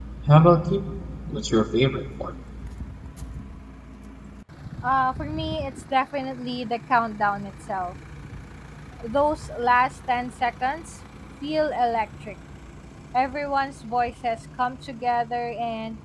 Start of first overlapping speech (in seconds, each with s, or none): none